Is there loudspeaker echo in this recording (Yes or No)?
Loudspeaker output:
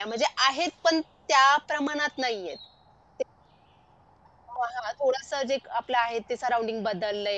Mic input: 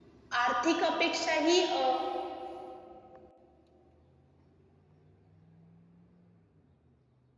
No